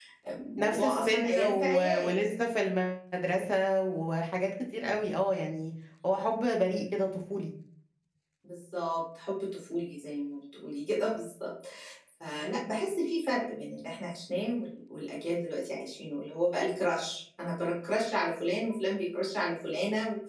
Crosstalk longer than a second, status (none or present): present